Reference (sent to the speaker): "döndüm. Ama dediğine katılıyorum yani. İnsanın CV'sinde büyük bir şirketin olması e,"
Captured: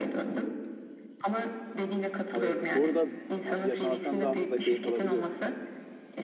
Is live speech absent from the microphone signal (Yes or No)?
No